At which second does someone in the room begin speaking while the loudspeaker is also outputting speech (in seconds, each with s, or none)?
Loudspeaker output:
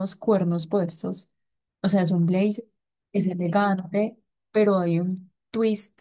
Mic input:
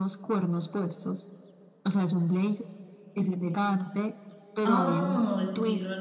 4.6 s